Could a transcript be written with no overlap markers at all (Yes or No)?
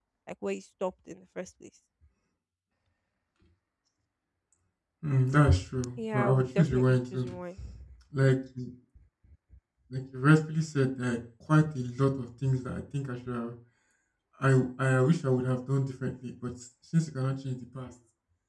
No